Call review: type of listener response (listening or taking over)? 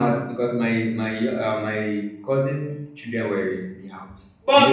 taking over